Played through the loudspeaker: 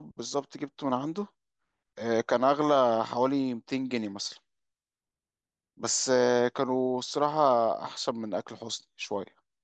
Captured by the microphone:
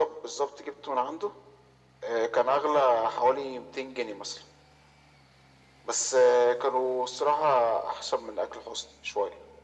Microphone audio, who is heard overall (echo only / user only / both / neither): echo only